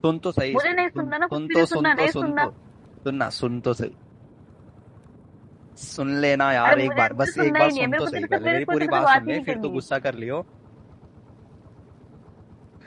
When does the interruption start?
0.5 s

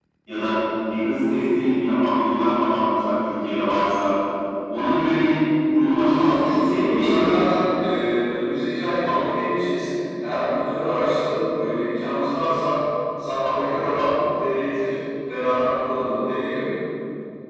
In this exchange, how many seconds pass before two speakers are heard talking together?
6.0 s

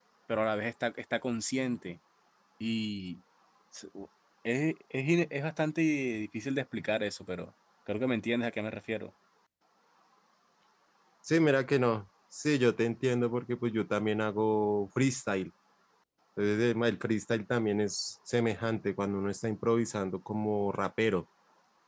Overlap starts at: none

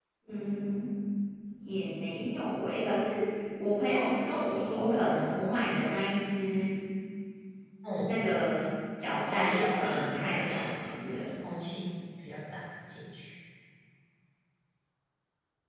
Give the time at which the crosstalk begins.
9.2 s

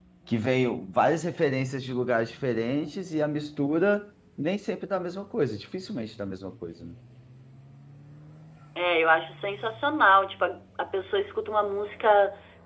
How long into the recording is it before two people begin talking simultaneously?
none

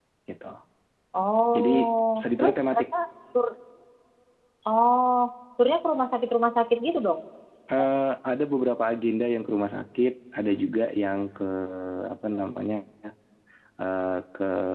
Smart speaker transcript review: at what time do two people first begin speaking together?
1.6 s

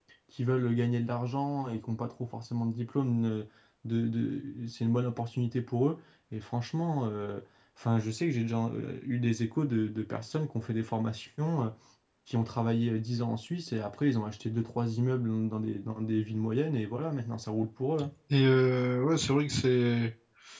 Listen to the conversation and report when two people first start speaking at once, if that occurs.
none

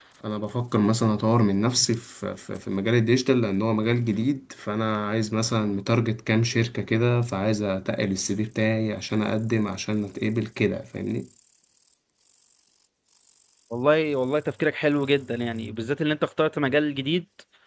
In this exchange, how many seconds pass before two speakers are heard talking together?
none

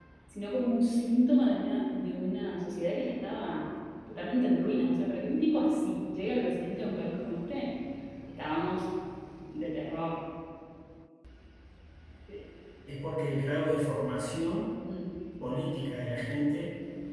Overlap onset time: none

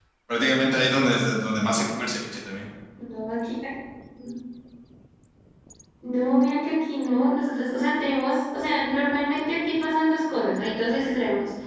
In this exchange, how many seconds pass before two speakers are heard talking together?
none

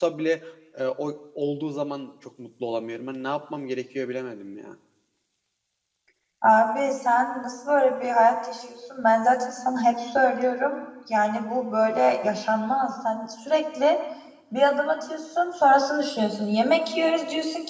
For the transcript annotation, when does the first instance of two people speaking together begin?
none

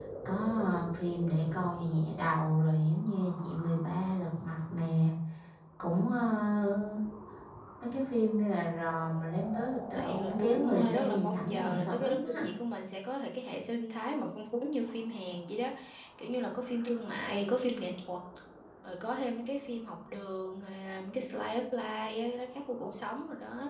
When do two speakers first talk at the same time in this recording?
9.9 s

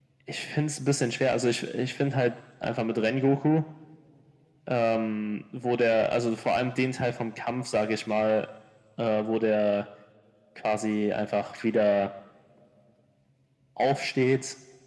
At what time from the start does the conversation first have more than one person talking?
none

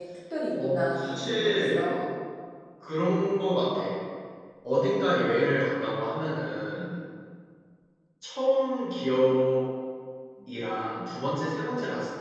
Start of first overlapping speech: 0.5 s

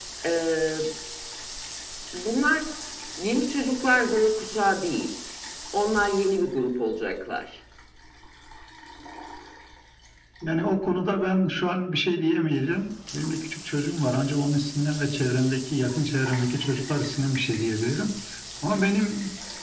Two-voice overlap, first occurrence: none

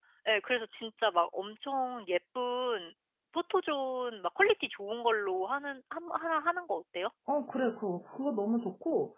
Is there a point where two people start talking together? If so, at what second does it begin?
none

